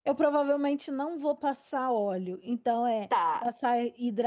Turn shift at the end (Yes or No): No